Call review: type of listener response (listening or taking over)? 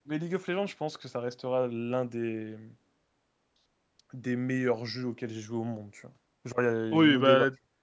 taking over